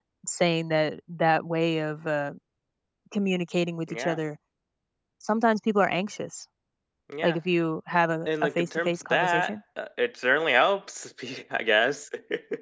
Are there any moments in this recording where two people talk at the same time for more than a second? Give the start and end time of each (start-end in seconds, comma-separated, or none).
8.3-9.5